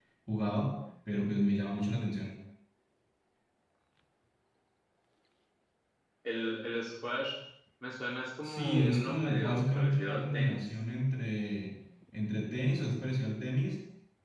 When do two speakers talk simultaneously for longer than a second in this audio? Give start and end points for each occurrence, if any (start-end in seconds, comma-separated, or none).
8.4-10.6